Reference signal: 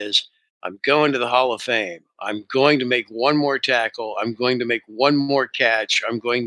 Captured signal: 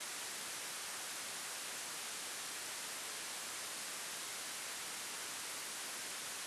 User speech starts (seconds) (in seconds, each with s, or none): none